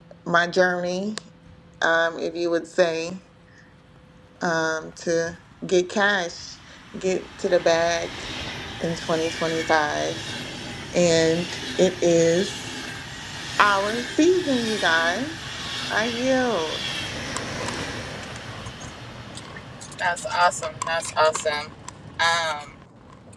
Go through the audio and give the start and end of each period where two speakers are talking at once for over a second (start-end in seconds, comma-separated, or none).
none